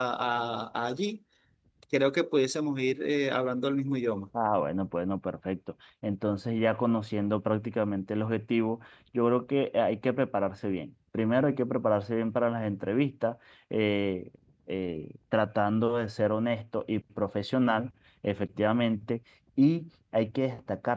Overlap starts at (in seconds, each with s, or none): none